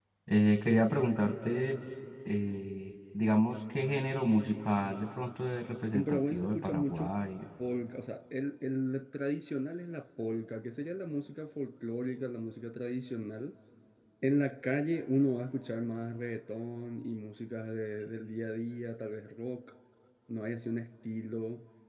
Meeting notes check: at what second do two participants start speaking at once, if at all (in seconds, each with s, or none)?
5.9 s